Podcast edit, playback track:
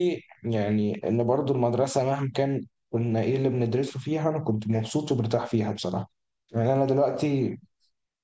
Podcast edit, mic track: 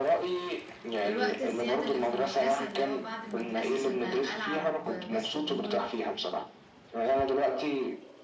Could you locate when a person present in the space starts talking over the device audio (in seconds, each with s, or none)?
1.0 s